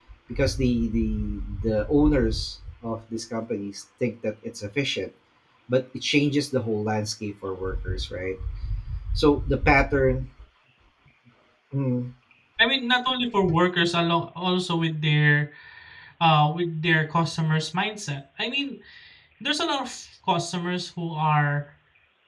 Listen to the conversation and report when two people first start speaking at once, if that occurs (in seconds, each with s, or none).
none